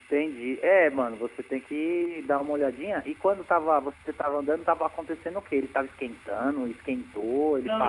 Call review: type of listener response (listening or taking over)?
taking over